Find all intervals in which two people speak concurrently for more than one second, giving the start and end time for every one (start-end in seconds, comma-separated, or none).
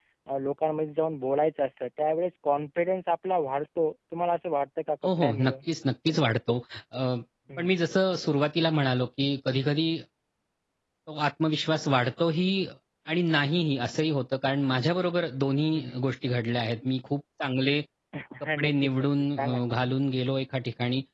18.6-20.0